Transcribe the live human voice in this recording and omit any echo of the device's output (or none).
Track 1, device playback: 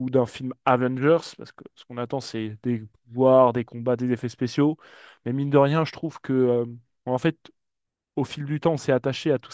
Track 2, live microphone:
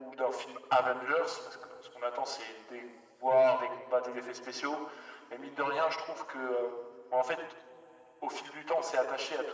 none